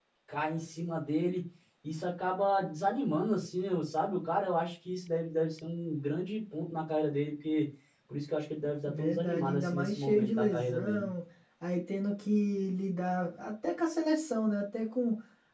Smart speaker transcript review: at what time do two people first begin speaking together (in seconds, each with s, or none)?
8.9 s